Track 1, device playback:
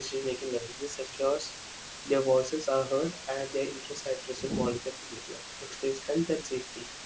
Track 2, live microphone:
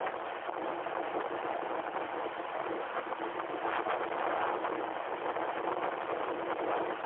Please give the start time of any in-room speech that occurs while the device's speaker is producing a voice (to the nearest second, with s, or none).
none